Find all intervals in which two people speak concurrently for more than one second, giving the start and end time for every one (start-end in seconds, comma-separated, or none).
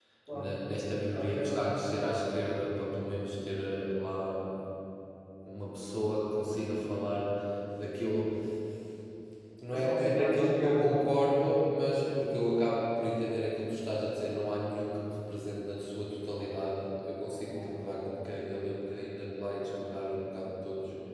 9.7-10.9